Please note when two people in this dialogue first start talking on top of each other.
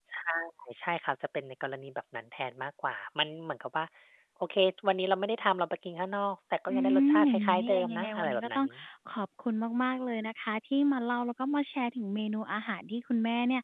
6.7 s

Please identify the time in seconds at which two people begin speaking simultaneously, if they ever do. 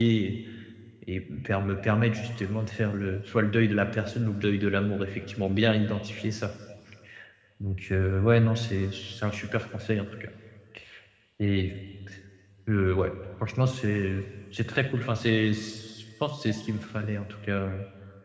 none

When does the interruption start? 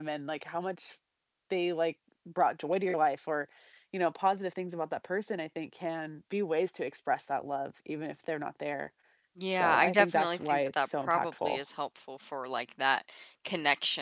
9.5 s

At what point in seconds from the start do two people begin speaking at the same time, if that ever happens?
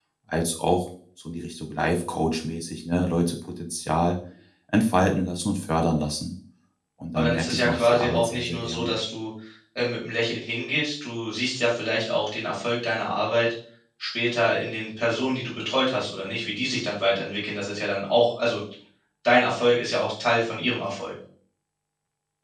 7.2 s

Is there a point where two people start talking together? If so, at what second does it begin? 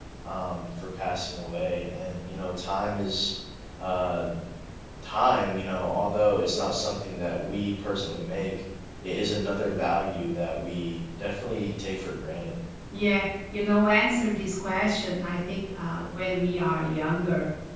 none

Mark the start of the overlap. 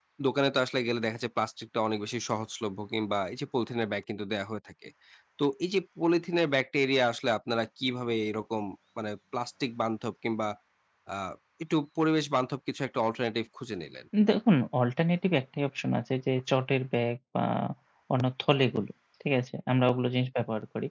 none

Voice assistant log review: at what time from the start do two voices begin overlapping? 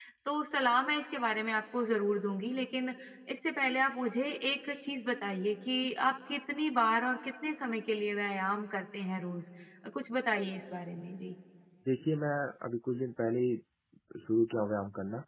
none

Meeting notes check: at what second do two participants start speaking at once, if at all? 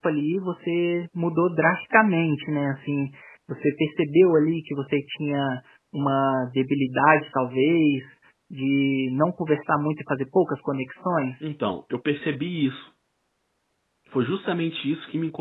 none

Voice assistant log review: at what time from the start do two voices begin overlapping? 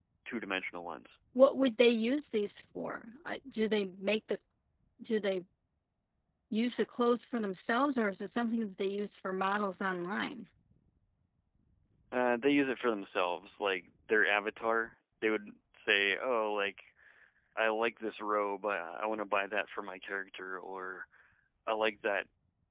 none

